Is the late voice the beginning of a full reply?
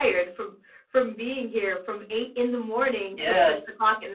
No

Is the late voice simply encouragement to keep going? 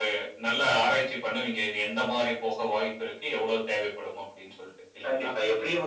No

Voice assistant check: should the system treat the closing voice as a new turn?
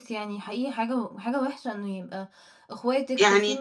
No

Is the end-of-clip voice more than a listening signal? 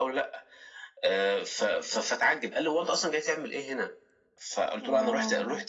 No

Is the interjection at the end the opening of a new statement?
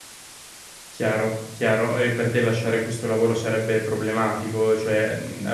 No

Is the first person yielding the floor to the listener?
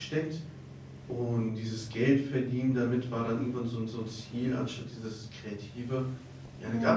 No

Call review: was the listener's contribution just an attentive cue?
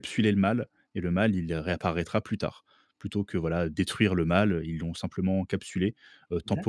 No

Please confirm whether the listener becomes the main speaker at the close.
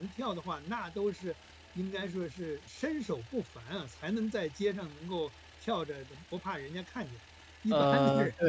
Yes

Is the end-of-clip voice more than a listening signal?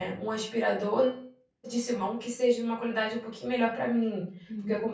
No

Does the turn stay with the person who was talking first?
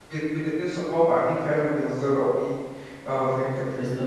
No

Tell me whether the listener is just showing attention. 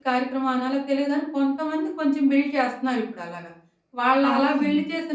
Yes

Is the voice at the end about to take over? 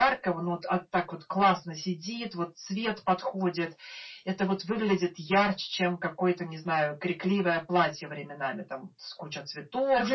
Yes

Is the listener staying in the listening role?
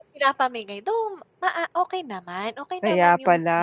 No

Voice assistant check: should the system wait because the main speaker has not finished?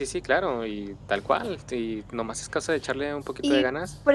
No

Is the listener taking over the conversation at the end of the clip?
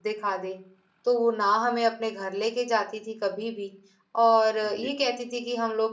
No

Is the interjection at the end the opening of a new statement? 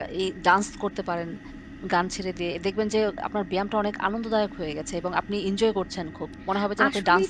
Yes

